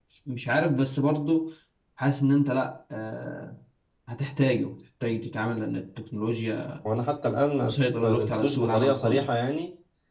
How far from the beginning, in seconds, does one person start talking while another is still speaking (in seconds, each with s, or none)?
7.6 s